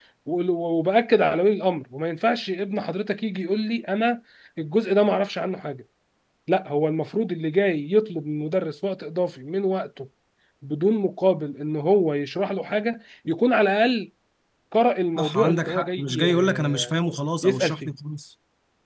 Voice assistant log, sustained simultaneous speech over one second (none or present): present